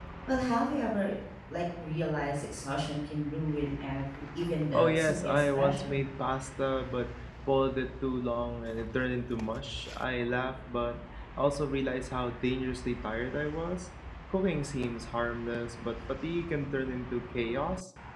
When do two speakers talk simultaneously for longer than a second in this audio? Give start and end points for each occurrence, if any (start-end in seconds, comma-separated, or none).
4.7-6.0